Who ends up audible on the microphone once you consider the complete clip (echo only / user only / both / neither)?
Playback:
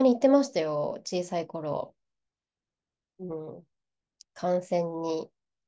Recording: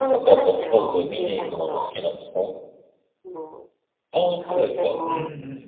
both